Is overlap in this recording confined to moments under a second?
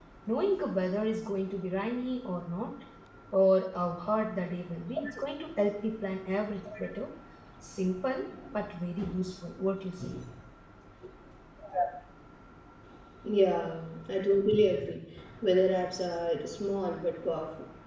Yes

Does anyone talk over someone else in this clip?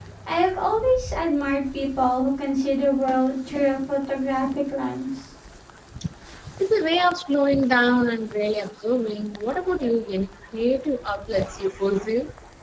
No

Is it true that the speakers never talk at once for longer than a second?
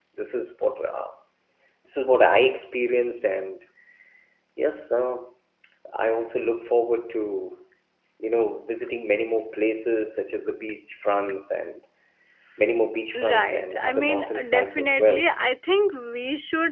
No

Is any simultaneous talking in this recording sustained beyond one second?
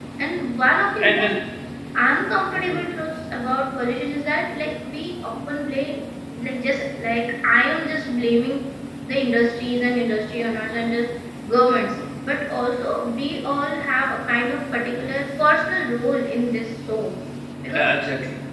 No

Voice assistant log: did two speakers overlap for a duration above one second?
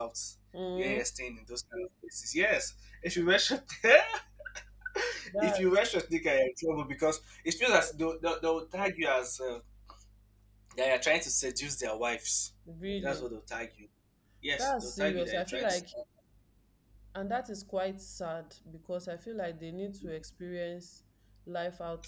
Yes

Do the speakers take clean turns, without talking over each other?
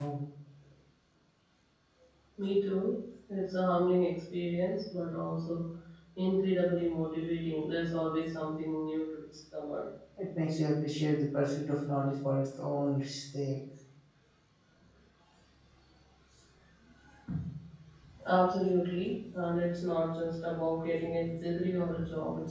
Yes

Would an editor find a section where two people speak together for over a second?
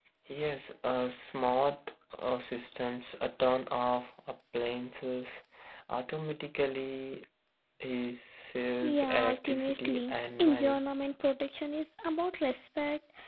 Yes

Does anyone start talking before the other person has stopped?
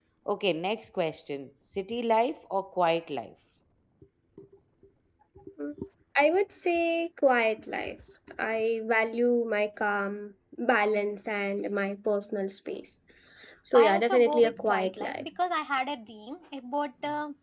Yes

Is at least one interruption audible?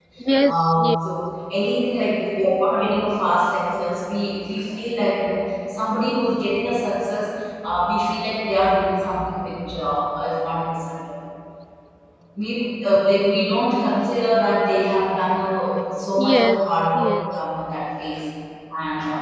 Yes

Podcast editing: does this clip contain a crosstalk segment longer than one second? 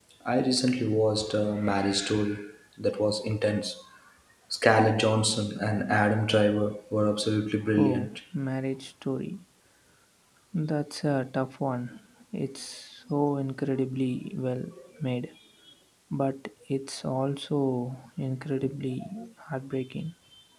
No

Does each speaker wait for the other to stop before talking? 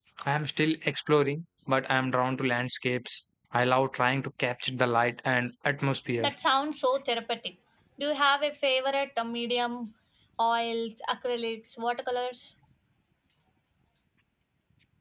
Yes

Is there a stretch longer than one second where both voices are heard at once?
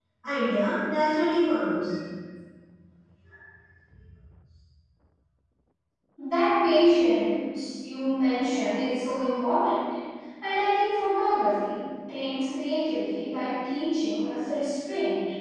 No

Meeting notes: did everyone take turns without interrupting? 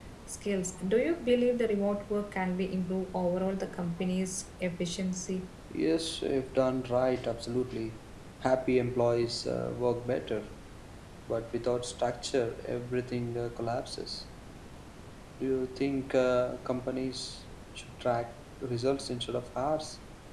Yes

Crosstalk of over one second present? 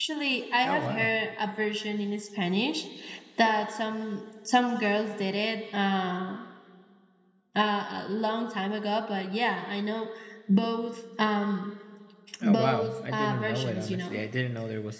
Yes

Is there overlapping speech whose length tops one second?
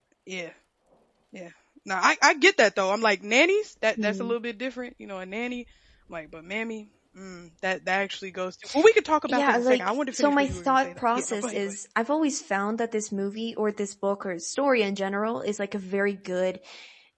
Yes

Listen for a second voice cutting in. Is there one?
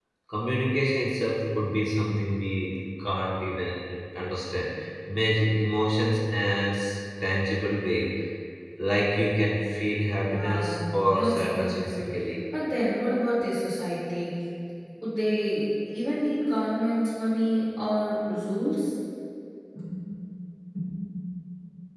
Yes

